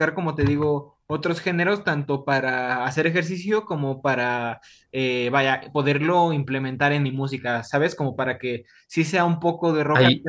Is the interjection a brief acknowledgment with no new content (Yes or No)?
Yes